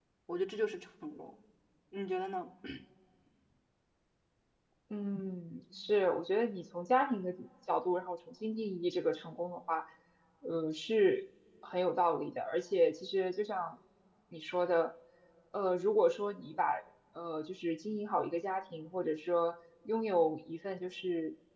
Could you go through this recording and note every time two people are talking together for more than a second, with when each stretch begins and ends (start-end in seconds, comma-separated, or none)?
none